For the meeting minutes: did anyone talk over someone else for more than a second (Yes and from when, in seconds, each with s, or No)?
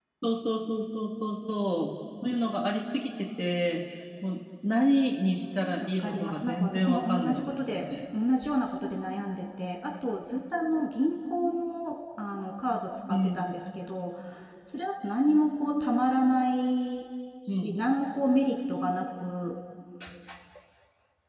Yes, from 5.8 s